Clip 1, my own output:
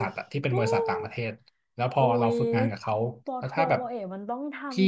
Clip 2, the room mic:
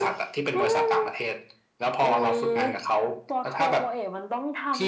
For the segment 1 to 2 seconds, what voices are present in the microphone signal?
echo only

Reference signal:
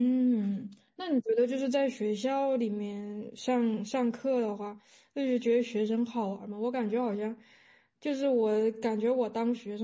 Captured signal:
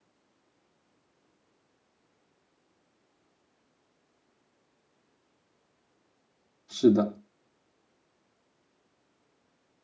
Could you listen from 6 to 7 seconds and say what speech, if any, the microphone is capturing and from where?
user only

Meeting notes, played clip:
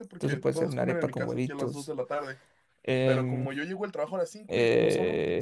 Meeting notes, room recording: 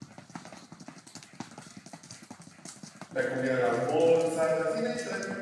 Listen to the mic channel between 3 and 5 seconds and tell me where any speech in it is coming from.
user only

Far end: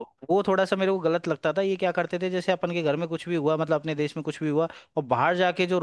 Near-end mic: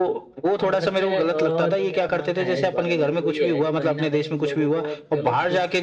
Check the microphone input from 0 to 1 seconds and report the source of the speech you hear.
both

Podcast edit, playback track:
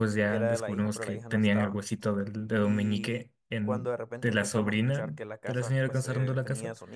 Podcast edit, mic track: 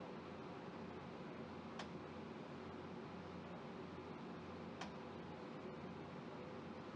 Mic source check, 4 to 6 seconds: neither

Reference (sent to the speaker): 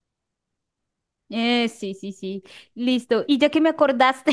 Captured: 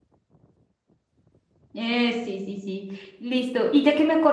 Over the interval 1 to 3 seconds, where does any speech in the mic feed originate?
echo only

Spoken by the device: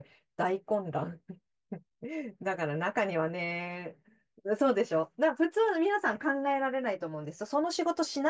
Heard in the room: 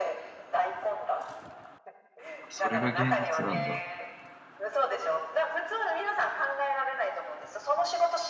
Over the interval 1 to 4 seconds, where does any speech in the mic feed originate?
both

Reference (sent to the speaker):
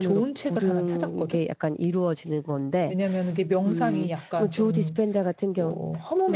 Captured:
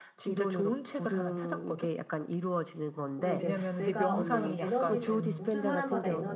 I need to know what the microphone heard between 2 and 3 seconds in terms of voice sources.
echo only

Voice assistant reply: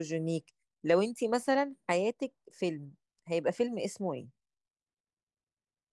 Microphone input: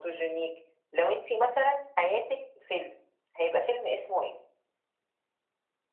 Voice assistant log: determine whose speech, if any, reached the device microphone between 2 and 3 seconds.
echo only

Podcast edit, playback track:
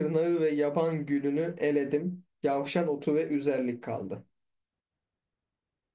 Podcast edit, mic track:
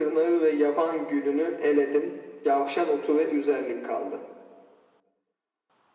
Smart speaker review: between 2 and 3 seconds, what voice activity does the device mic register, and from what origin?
echo only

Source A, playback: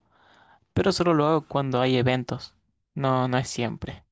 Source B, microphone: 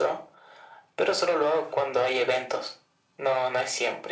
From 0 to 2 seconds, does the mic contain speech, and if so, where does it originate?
echo only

